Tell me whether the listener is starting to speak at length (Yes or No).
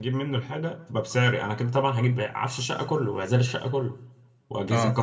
No